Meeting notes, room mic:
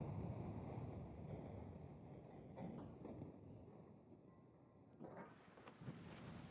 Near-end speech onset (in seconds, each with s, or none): none